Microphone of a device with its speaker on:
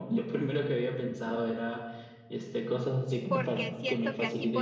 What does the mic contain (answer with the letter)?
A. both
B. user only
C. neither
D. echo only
A